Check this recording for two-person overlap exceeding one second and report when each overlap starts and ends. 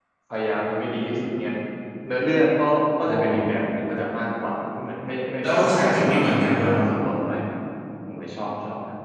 5.4-6.8

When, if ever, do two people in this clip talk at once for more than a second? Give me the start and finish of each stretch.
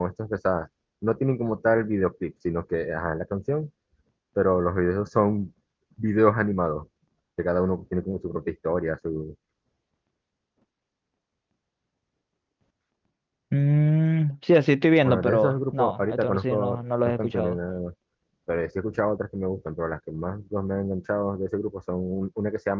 15.0-17.6

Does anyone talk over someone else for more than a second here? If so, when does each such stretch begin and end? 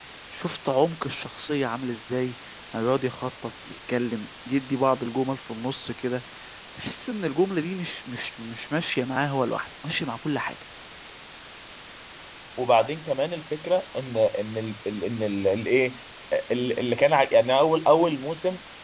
none

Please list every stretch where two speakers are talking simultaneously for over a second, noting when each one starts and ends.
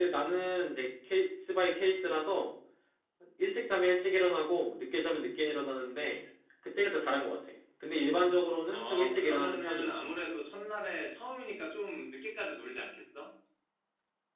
8.7-9.9

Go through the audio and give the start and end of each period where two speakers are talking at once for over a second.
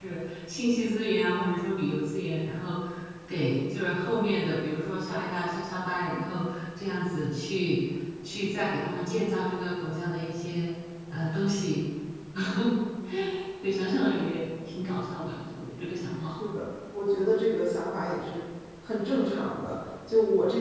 none

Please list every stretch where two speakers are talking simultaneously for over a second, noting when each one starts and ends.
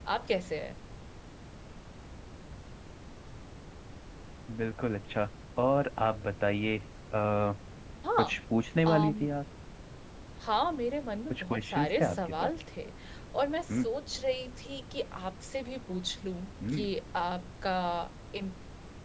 11.3-12.5

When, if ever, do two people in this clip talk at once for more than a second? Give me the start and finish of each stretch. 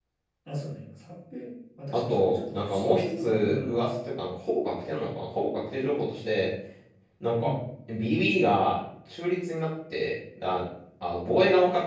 1.9-3.9

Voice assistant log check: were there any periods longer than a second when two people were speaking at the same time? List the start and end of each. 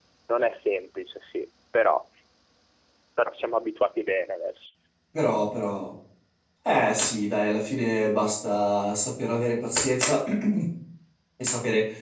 none

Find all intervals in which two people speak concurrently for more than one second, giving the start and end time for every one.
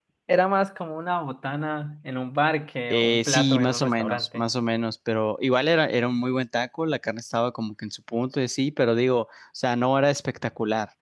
2.9-4.4

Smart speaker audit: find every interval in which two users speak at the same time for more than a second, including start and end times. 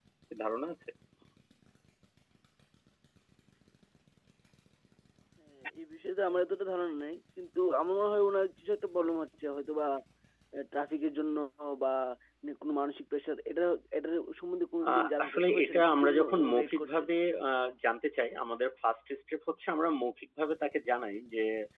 14.9-17.0

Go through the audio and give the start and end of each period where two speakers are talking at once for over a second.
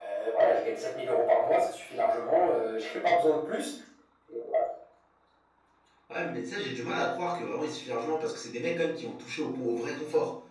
none

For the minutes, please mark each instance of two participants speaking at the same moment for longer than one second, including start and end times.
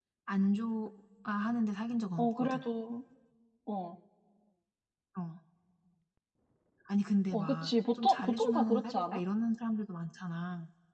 7.3-9.2

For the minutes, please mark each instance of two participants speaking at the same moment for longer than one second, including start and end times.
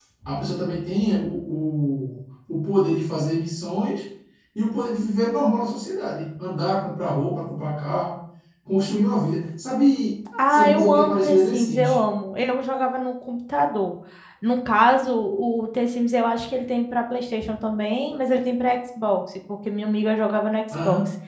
10.5-12.0

